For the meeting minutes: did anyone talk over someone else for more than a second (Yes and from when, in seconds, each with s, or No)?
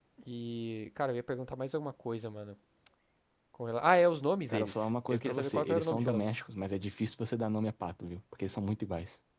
Yes, from 4.5 s